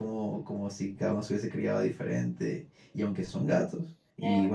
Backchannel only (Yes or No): Yes